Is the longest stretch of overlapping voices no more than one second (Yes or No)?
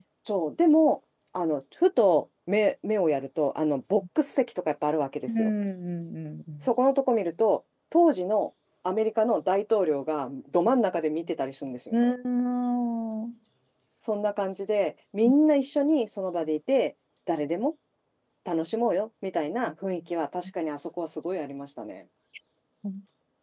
Yes